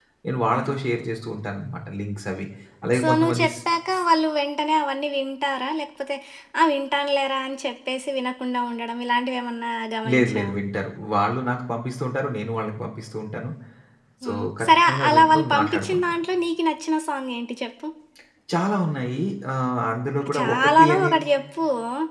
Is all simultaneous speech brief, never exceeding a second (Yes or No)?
No